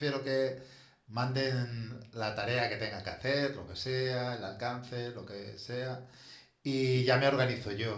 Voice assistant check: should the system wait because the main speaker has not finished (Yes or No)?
Yes